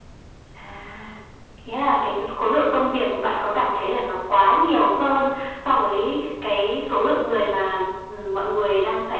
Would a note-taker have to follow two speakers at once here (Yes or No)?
No